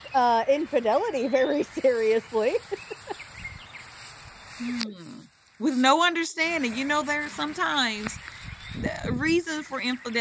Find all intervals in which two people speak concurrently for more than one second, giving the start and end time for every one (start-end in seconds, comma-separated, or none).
none